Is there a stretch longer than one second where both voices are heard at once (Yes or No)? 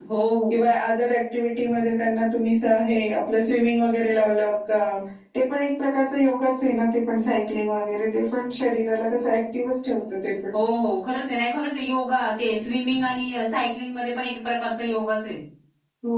No